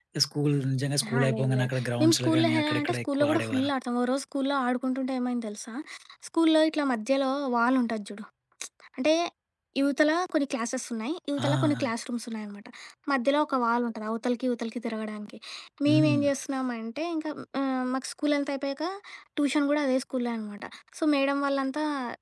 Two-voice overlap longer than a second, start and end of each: 1.0-3.7

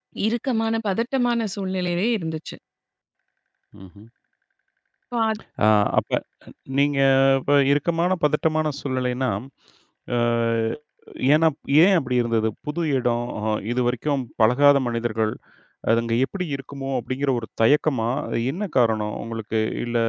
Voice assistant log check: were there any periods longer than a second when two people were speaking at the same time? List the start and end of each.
none

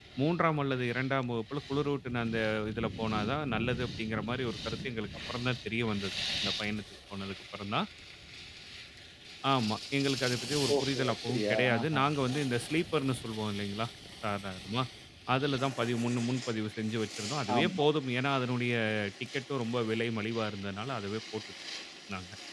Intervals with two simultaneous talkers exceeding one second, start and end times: 10.8-12.0

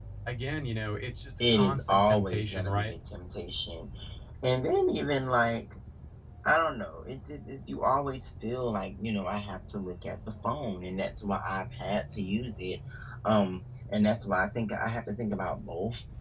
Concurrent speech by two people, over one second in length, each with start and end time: 1.5-2.9

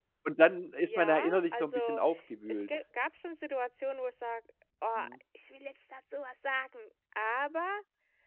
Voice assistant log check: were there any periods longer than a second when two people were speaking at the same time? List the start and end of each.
0.8-2.0

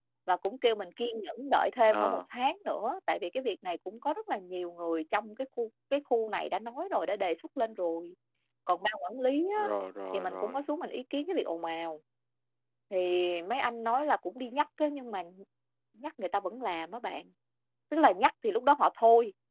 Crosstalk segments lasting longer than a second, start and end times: none

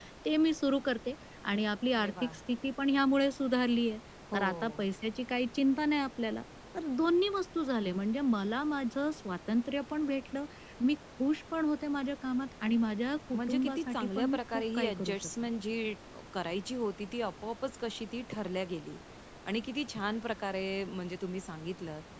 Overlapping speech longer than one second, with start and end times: 13.4-15.5

